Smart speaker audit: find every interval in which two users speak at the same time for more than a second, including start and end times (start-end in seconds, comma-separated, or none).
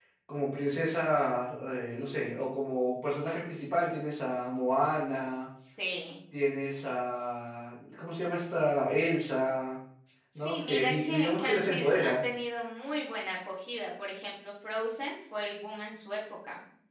10.3-12.2